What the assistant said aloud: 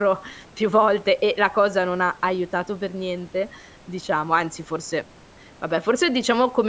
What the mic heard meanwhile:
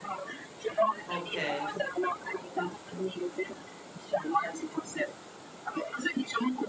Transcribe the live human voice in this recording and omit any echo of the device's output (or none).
Okay.